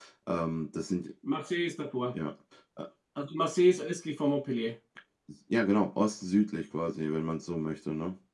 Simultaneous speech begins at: none

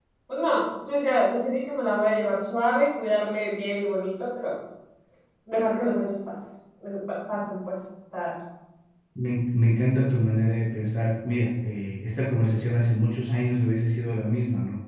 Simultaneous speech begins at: none

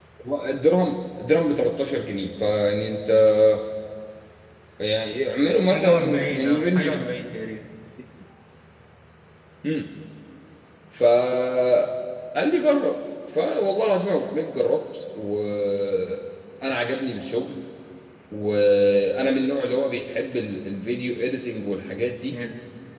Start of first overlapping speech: 5.7 s

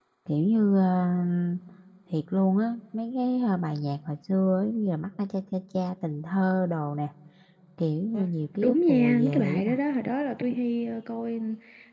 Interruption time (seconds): 8.1 s

